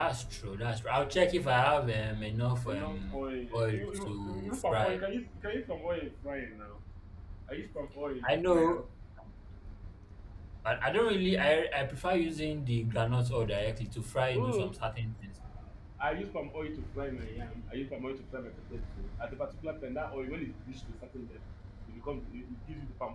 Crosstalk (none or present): present